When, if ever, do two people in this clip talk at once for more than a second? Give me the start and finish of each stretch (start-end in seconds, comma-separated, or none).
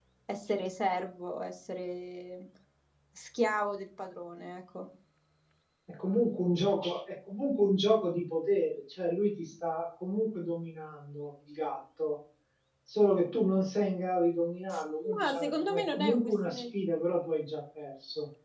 15.2-16.6